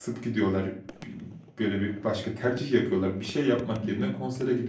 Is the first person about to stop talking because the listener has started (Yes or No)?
No